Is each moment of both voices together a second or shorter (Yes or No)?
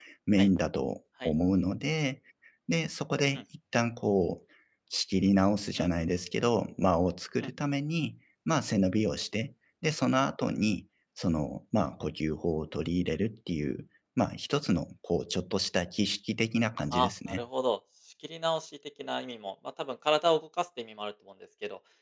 Yes